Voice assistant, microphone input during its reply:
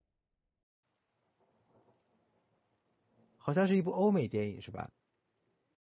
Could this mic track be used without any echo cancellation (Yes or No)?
Yes